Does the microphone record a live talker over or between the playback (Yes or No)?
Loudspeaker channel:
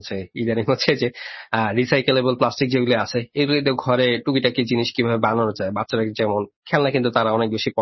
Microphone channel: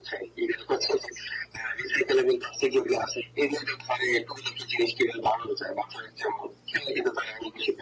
No